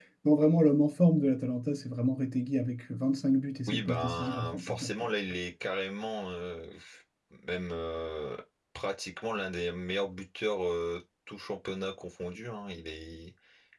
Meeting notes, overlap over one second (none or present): present